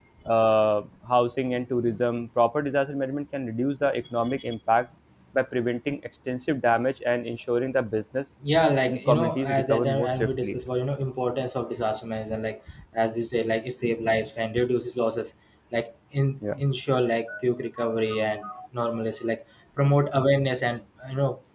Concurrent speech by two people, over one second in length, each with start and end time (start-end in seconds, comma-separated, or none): 8.9-10.6